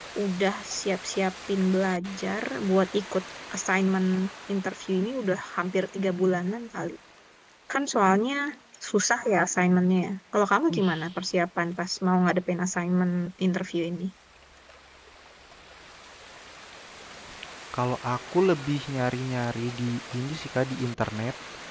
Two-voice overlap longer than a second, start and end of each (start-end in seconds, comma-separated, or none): none